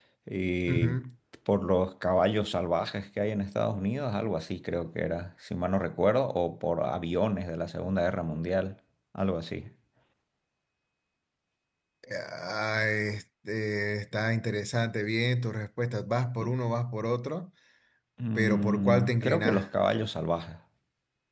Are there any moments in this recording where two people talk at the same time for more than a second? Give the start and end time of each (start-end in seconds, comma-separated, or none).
18.4-19.6